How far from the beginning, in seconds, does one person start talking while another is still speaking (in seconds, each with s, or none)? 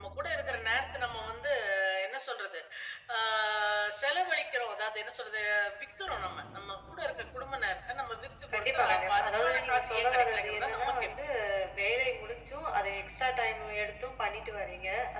8.5 s